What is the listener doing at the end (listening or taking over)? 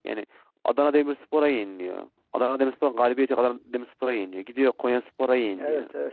listening